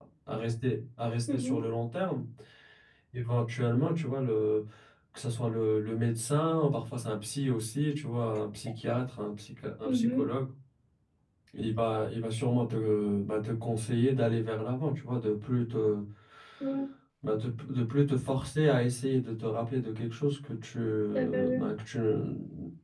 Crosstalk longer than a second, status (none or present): none